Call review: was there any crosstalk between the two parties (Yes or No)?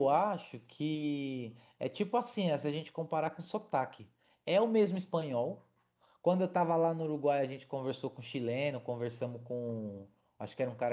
No